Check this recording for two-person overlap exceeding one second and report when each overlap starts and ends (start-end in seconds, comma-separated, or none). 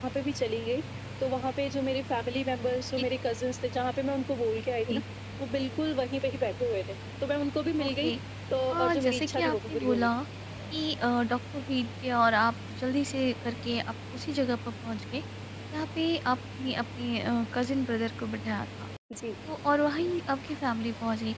8.7-10.1